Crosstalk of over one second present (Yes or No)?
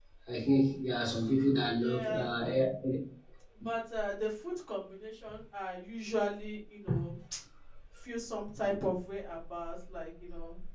No